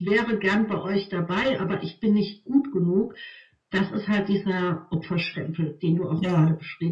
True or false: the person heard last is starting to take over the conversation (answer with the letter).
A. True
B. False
A